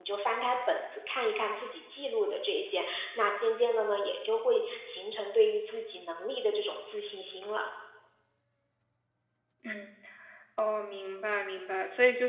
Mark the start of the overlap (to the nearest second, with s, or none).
none